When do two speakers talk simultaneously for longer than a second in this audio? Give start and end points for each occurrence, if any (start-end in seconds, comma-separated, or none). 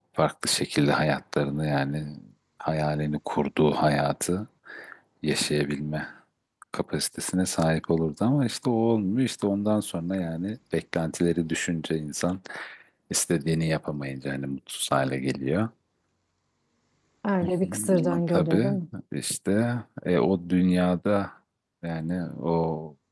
17.4-18.7